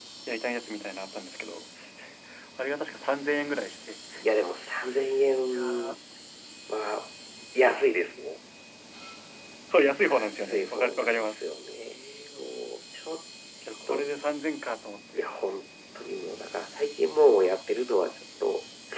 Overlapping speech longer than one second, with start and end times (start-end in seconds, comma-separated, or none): 10.0-11.4